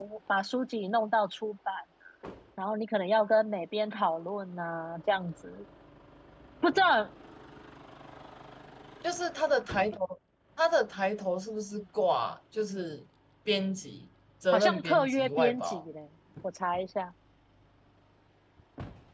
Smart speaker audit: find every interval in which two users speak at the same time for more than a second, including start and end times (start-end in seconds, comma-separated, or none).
14.5-15.8